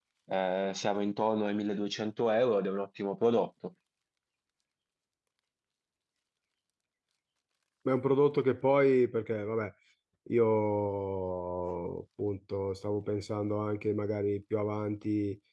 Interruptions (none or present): none